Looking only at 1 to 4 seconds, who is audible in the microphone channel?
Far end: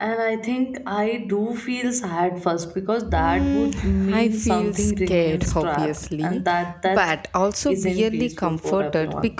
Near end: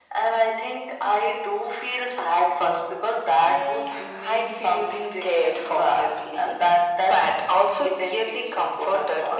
echo only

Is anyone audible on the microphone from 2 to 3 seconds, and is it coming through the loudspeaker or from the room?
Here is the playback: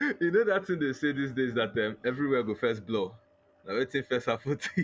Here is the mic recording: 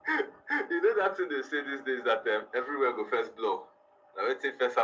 echo only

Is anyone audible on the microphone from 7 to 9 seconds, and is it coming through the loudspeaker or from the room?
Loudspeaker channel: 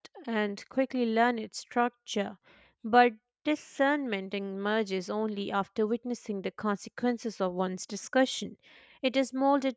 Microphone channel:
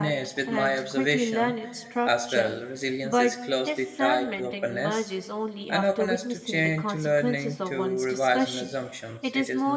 both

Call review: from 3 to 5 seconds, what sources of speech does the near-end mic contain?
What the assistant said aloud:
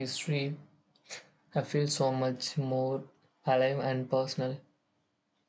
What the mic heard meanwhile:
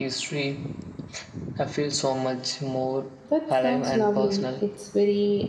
both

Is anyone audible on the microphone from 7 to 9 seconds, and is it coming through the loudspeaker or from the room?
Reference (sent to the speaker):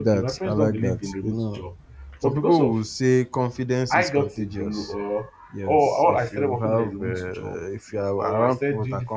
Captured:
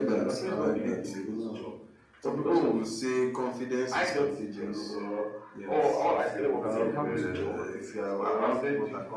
both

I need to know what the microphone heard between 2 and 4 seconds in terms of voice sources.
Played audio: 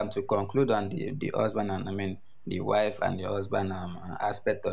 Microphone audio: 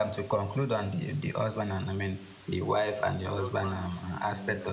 both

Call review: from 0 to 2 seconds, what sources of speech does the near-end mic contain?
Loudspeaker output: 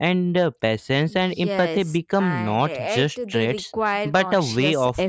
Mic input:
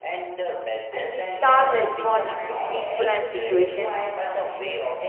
both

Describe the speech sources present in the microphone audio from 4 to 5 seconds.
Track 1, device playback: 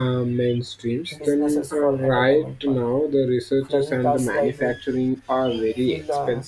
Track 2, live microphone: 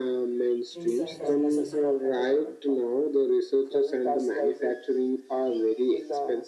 echo only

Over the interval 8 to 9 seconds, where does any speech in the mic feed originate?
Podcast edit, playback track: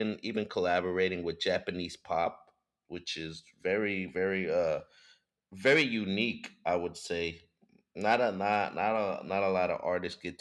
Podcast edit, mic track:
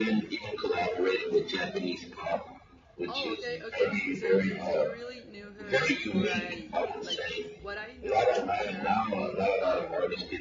both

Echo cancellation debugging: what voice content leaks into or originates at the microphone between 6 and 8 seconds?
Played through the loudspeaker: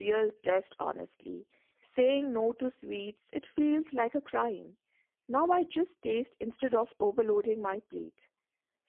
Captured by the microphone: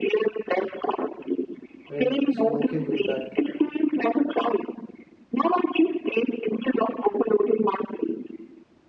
echo only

